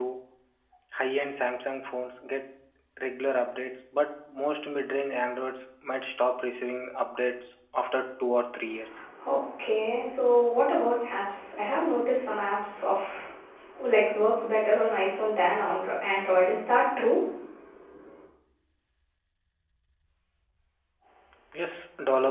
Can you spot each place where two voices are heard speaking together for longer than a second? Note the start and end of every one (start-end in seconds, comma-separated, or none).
none